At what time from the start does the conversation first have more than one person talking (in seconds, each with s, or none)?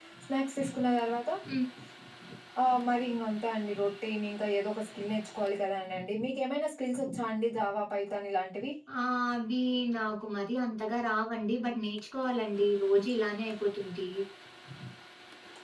none